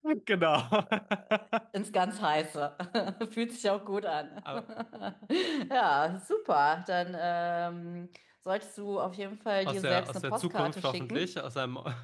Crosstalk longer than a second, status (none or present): present